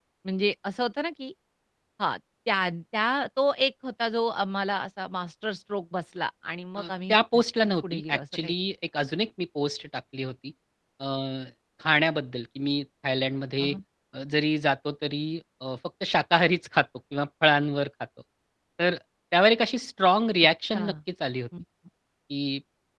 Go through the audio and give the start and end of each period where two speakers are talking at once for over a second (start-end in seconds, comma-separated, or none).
6.8-8.5